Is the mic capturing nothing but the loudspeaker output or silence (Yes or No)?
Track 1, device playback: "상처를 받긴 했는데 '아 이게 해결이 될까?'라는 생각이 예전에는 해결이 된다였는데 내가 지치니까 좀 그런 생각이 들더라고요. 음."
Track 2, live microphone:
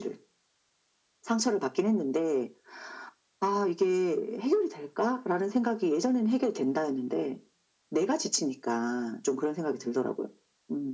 Yes